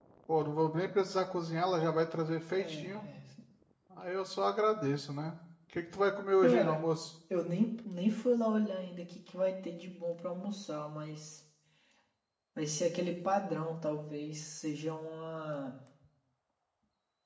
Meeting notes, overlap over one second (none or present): none